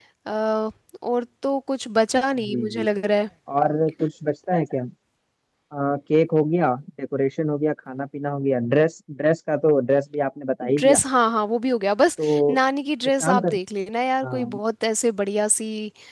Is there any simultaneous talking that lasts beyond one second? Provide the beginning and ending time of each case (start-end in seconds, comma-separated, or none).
none